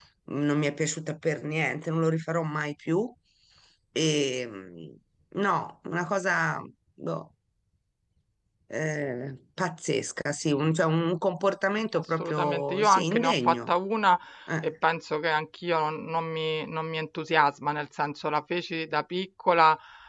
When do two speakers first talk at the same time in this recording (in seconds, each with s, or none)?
11.9 s